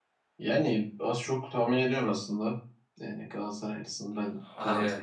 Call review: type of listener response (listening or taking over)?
listening